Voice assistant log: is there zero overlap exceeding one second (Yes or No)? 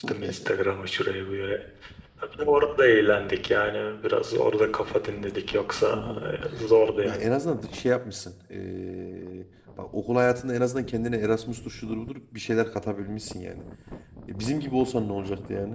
Yes